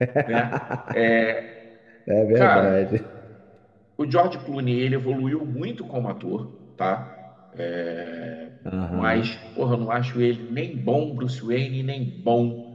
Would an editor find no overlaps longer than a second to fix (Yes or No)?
Yes